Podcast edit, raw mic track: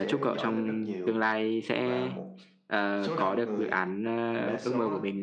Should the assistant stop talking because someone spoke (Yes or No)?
Yes